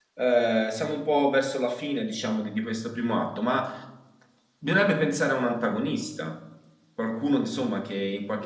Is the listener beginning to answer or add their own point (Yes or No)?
Yes